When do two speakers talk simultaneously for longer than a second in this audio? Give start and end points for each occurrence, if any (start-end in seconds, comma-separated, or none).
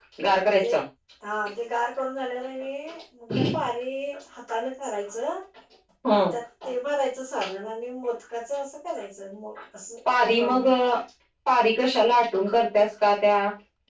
none